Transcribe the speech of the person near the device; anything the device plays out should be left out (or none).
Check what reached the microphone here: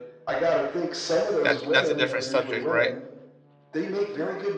That's that's a different subject, right?